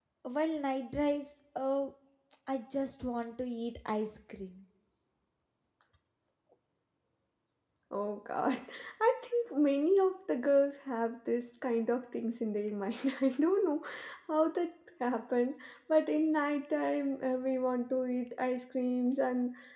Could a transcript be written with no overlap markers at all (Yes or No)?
Yes